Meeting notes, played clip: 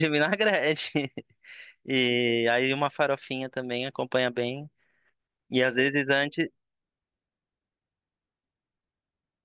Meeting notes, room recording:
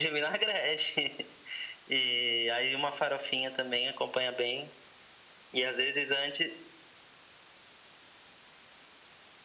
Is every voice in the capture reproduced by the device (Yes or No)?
Yes